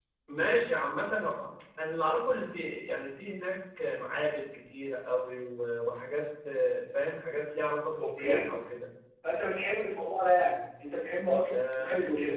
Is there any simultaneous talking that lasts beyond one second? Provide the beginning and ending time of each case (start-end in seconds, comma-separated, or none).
none